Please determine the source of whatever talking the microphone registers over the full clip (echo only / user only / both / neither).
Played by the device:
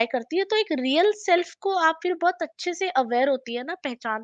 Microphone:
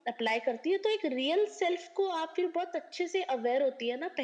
echo only